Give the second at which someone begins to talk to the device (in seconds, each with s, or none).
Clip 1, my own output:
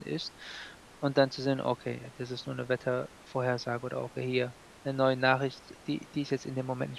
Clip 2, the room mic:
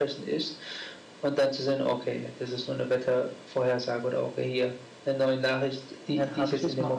6.1 s